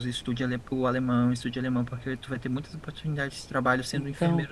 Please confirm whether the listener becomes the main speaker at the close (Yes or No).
No